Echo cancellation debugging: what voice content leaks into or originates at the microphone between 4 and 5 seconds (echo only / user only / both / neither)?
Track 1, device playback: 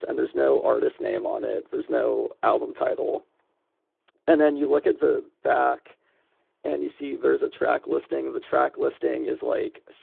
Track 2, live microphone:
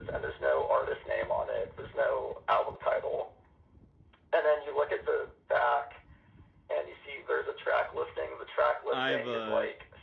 echo only